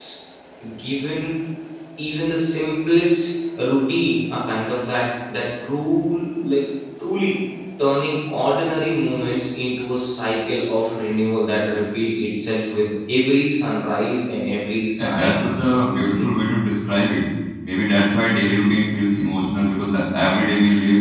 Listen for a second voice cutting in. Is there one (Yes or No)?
Yes